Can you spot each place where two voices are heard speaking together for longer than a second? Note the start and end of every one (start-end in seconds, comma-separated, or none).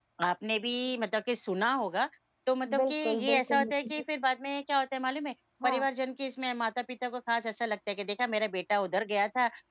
2.8-4.0